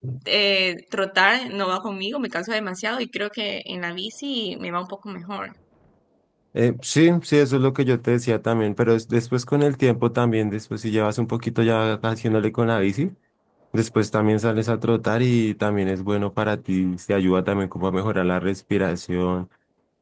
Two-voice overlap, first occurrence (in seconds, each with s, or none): none